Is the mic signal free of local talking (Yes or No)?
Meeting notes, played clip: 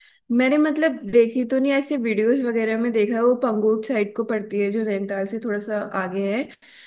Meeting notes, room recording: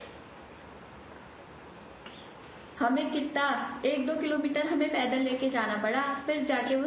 No